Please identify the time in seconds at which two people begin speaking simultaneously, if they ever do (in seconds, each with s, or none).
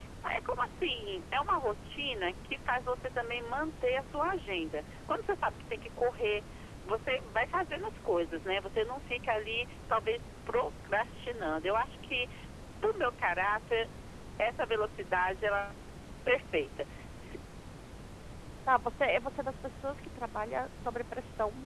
none